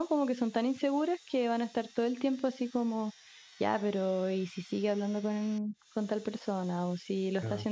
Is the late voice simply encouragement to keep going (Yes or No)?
Yes